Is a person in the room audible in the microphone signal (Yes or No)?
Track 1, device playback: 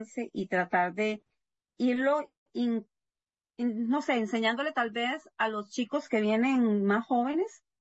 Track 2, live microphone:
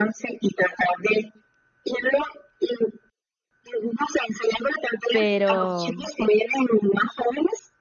Yes